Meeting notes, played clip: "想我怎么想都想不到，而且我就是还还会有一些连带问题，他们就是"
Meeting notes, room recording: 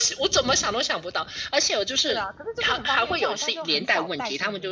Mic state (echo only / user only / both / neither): both